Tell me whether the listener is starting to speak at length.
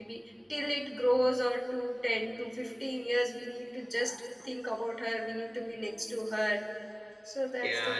Yes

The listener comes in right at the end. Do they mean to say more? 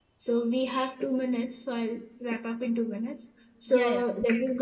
No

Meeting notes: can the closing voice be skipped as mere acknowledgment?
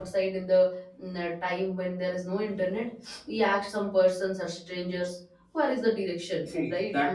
No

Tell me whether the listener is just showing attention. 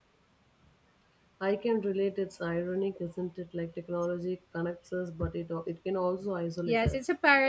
No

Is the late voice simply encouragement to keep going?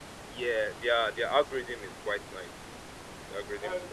No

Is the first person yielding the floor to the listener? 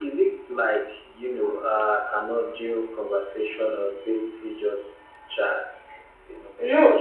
Yes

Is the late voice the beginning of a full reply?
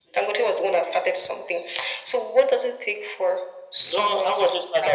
Yes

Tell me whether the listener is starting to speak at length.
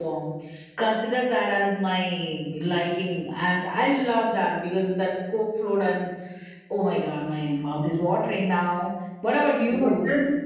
Yes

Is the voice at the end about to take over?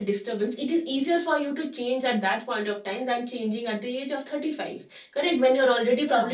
No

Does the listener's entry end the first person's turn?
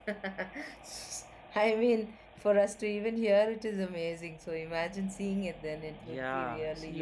Yes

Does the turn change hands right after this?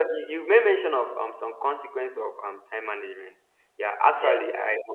No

